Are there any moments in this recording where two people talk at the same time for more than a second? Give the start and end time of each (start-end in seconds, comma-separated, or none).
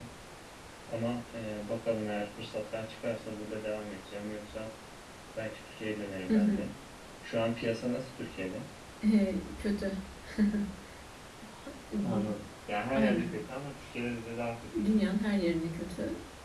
none